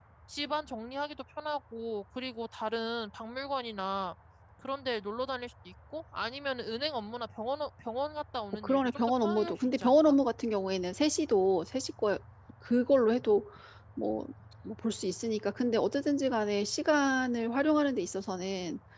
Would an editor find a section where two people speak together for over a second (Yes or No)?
Yes